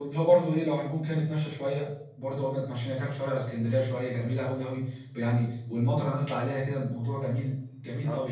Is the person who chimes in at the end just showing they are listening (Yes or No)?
No